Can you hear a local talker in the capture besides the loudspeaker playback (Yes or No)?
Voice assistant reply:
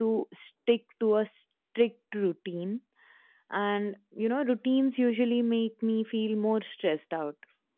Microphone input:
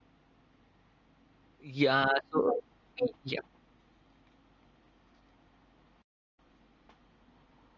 Yes